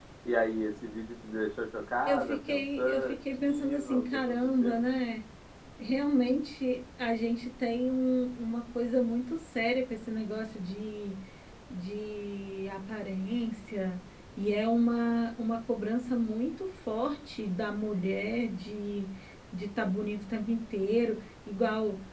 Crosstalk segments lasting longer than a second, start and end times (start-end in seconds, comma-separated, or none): 2.1-4.8